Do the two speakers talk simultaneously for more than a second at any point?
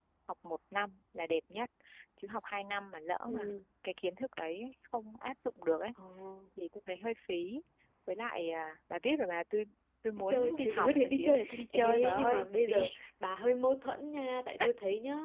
Yes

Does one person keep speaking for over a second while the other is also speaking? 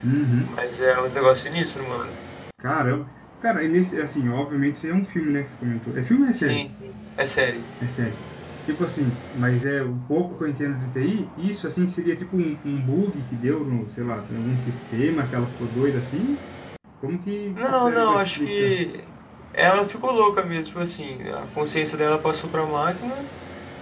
Yes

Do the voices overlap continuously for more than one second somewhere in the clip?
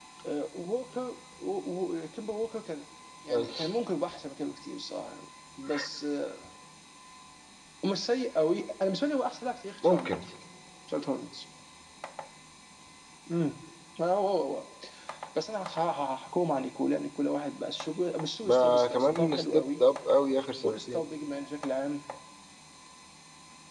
Yes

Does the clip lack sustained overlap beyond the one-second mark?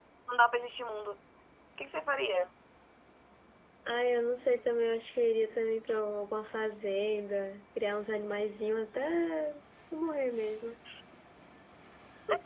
Yes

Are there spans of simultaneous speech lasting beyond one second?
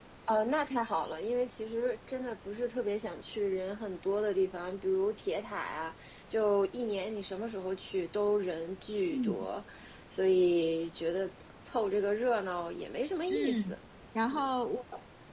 No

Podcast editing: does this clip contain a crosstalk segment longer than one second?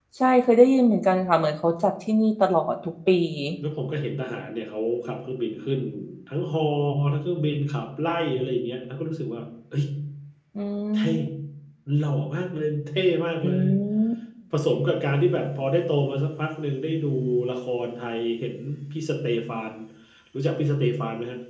No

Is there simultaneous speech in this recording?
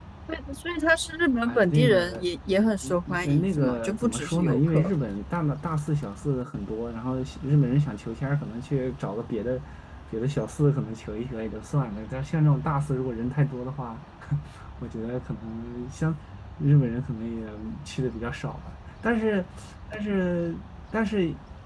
Yes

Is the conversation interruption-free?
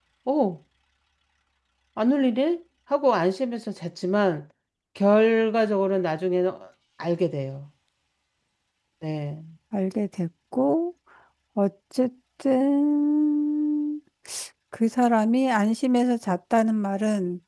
Yes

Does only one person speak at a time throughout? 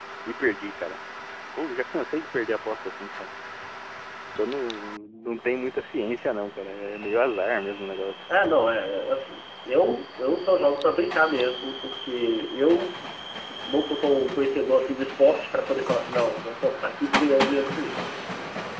Yes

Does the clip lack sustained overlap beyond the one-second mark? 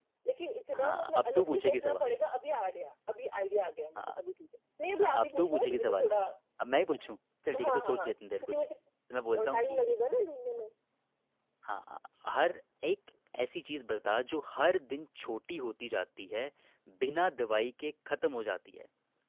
No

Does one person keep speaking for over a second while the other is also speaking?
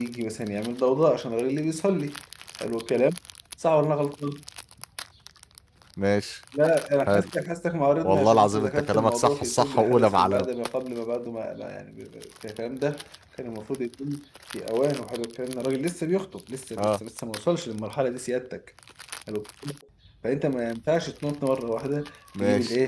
Yes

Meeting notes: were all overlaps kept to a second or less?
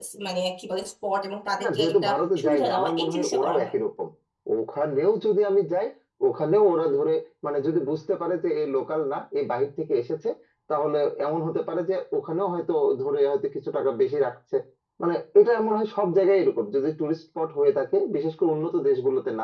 No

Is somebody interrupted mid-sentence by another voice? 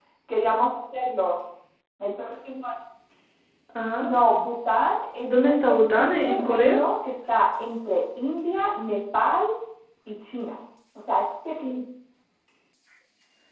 Yes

